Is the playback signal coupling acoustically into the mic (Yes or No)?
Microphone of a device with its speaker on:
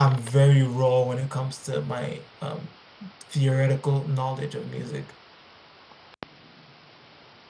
No